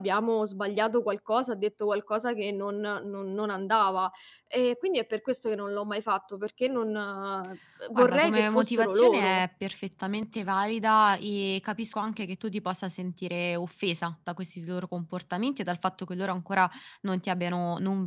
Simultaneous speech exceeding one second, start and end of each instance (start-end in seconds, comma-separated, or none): 8.0-9.4